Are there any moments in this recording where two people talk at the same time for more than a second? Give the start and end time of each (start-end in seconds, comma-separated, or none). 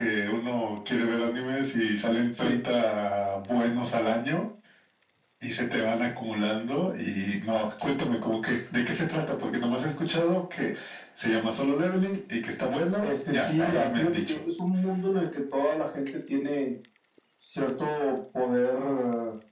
13.0-14.4